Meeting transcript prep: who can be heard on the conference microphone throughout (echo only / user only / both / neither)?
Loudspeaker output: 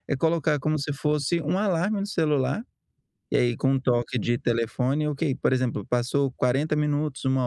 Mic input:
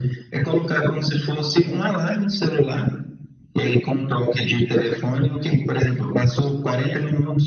echo only